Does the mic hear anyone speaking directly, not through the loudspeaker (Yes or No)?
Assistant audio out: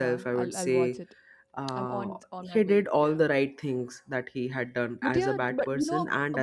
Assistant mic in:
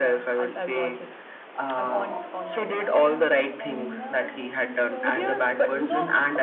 Yes